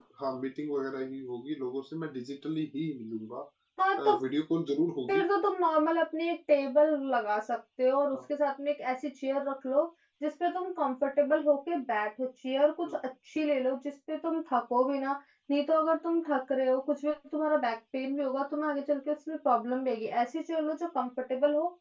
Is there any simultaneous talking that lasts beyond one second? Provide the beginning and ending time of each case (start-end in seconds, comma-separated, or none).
none